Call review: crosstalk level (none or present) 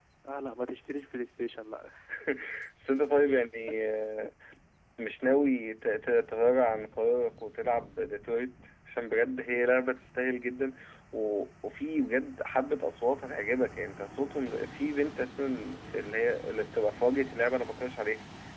none